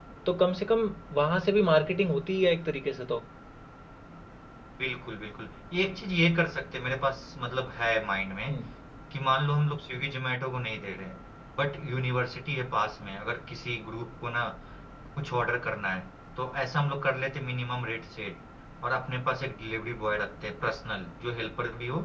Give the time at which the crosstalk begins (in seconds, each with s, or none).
none